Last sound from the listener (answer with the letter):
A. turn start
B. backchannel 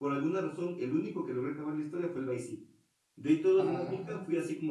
B